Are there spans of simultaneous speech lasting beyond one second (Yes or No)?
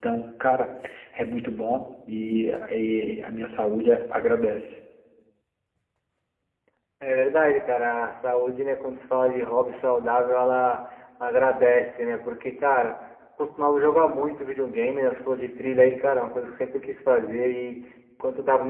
No